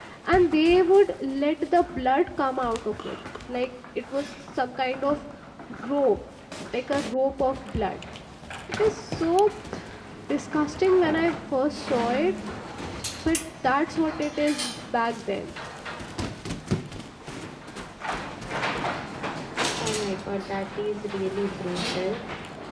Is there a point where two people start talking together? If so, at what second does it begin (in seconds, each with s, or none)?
none